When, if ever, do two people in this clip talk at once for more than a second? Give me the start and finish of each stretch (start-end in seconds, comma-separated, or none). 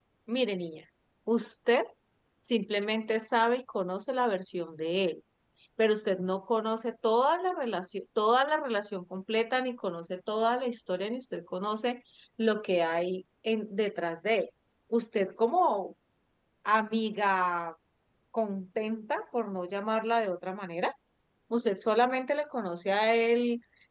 none